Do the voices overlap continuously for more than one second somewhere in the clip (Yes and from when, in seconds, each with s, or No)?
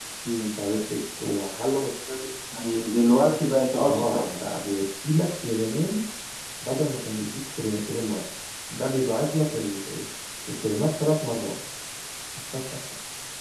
No